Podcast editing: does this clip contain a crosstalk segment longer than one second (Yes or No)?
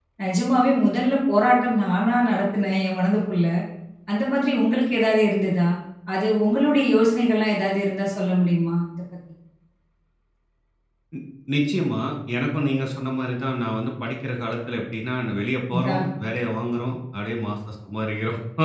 No